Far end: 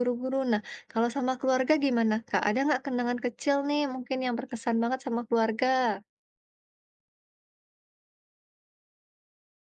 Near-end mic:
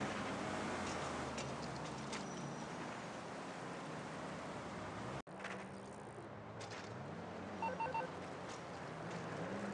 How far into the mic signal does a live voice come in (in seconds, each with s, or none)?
none